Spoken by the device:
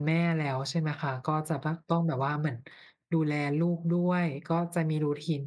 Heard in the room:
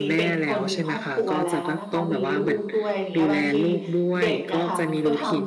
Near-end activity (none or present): present